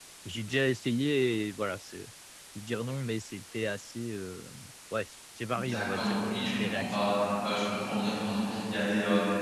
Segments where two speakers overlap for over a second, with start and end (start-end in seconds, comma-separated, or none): 5.5-7.0